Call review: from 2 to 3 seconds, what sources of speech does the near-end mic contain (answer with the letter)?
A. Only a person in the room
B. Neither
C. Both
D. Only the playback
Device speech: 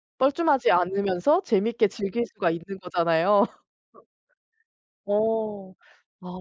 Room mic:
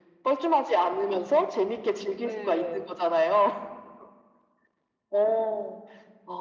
C